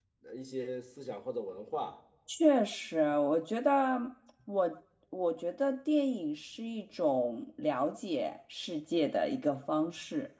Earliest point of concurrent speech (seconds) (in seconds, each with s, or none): none